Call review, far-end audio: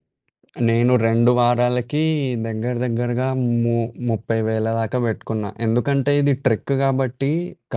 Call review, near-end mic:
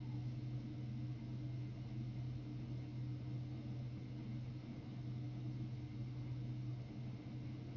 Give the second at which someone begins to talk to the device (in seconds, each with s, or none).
none